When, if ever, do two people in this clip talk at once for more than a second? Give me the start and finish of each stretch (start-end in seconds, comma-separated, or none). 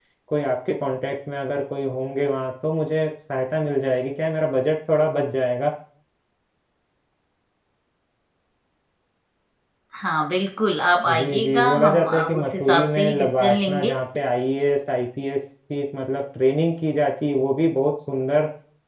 11.2-14.0